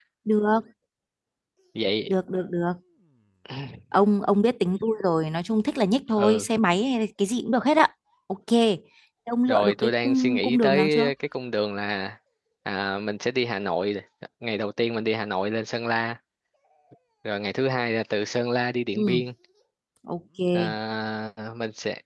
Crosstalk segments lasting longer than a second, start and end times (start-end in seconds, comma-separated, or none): 9.5-11.1